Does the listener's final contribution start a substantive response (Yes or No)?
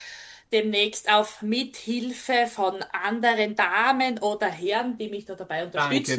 Yes